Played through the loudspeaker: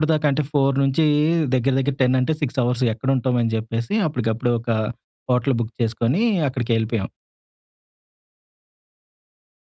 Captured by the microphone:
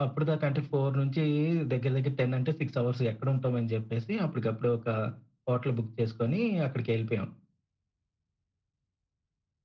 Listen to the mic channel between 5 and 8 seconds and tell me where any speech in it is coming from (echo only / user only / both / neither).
echo only